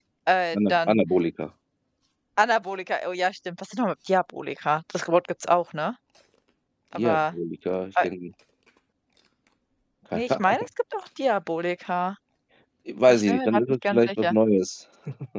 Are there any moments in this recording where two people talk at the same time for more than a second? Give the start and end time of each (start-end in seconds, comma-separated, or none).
13.1-14.4